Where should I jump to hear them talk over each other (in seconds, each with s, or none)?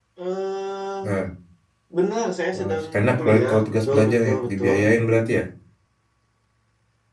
2.5 s